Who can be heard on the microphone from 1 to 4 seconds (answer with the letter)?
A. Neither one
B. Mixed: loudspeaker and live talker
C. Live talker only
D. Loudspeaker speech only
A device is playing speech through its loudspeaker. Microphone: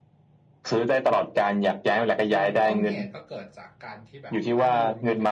B